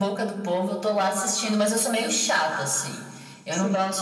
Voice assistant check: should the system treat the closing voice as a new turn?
No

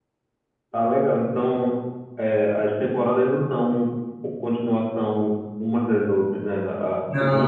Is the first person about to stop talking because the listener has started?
No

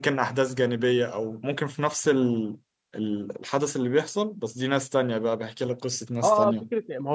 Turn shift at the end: Yes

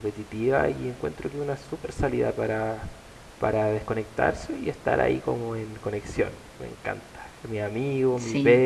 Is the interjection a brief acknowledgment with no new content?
Yes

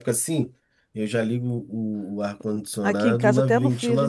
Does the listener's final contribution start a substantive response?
Yes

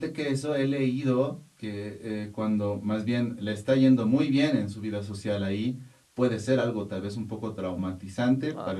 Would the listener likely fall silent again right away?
Yes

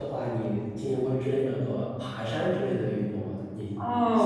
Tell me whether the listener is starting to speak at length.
Yes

